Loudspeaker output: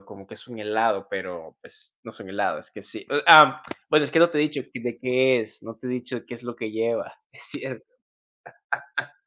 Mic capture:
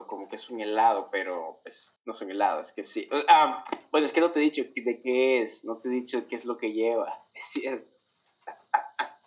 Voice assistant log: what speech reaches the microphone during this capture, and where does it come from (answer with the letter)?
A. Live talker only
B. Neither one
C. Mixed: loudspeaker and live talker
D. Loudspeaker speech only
D